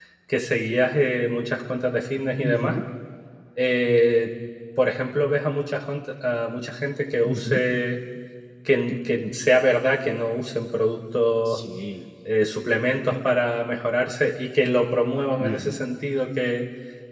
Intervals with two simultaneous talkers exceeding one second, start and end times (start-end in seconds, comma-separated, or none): none